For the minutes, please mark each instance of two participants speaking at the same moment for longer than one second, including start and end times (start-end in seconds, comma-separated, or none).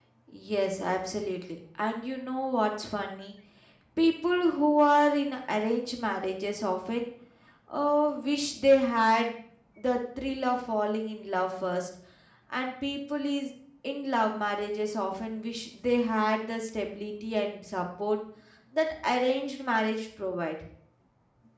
none